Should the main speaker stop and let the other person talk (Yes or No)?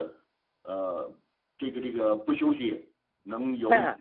Yes